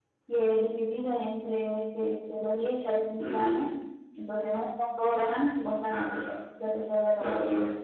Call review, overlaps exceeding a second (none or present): none